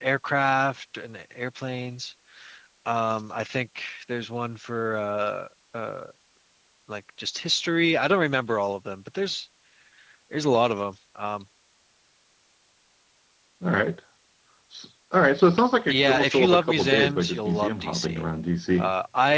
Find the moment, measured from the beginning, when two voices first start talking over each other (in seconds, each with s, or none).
15.9 s